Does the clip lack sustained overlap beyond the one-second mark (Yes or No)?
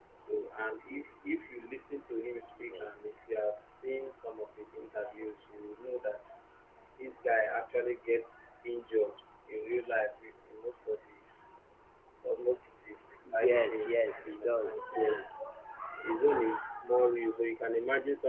No